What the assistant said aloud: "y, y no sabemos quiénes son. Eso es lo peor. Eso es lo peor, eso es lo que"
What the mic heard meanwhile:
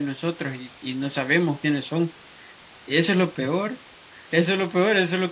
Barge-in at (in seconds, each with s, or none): none